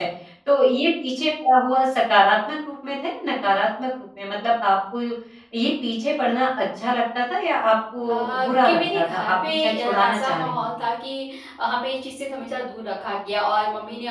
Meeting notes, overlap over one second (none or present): present